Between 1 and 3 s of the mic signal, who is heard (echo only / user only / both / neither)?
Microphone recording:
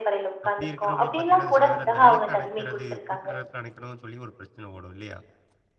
both